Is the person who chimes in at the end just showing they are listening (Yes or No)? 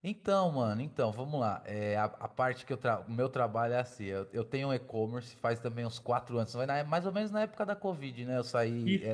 Yes